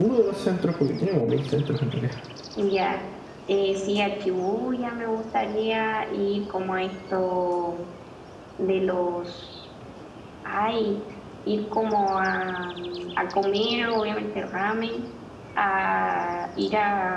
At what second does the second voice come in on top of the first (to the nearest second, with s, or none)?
none